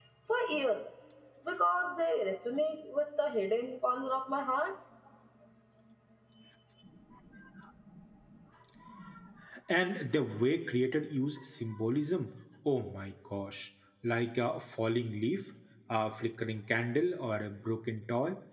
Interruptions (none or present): none